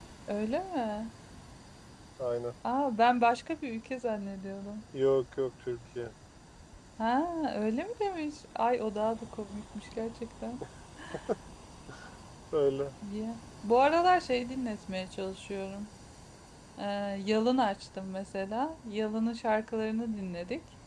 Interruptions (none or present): none